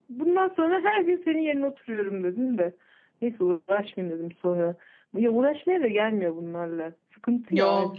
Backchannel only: No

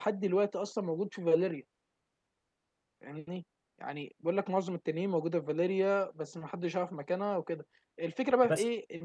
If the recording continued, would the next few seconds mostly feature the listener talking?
No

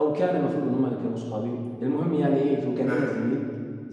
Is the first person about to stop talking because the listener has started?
No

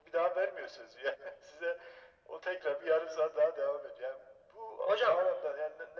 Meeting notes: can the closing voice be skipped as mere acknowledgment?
Yes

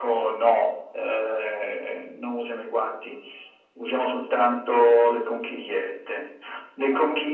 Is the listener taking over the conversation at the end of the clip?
No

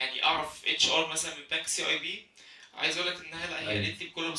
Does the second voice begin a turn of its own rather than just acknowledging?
No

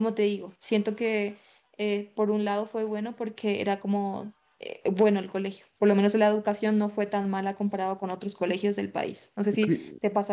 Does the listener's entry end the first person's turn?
Yes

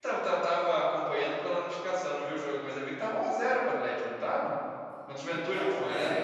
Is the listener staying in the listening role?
No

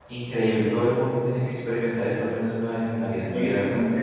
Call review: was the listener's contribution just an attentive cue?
No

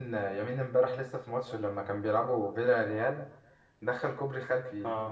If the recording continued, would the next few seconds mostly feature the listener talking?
No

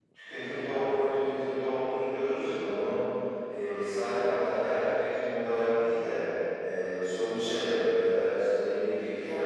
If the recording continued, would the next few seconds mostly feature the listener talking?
No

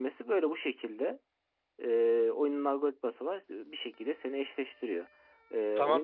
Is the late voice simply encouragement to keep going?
No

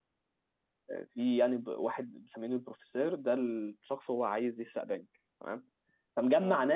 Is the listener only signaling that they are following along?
Yes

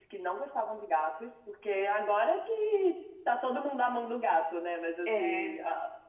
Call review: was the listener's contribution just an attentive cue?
Yes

